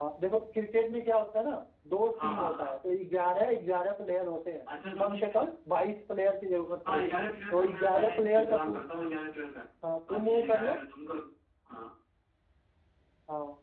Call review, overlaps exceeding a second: present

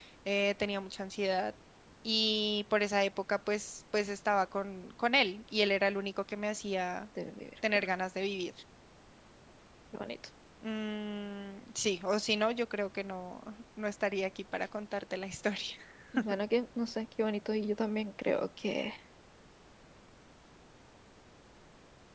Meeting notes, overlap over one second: none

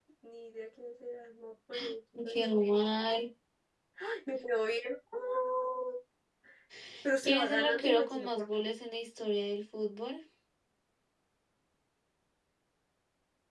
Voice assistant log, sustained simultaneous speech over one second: present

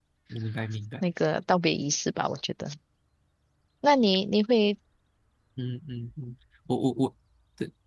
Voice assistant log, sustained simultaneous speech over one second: none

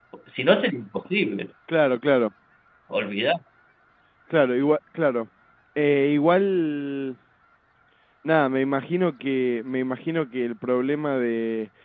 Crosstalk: none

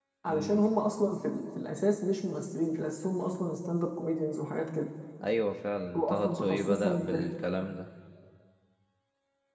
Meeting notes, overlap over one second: present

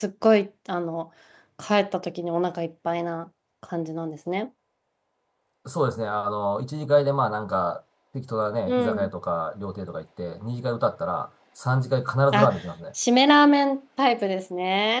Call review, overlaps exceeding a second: none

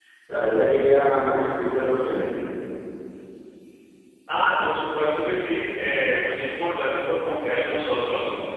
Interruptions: none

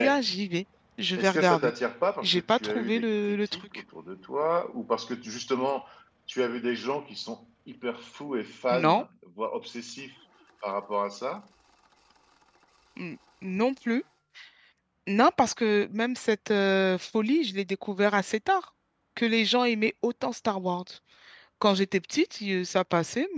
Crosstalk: present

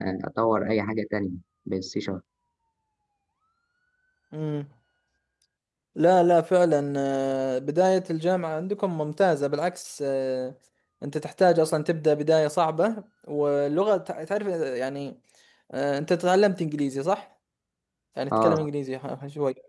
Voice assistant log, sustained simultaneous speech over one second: none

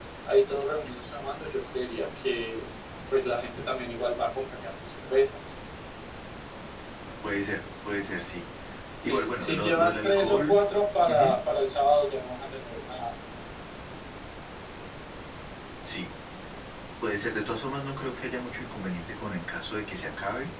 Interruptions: present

